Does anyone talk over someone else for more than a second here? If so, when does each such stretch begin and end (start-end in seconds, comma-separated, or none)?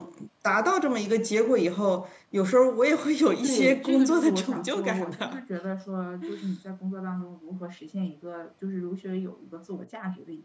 3.4-5.4